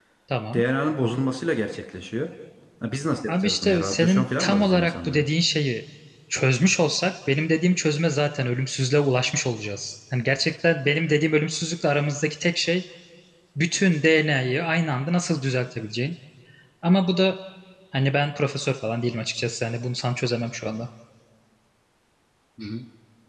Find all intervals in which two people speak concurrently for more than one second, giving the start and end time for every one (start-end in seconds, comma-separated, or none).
3.3-5.2